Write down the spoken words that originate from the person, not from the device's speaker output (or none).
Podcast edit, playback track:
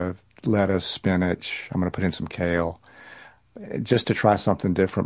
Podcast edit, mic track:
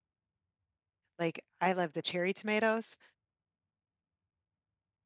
like I love the cherry tomatoes.